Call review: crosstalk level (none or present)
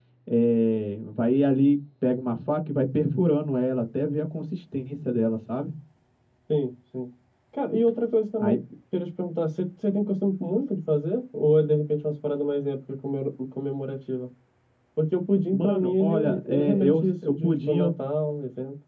present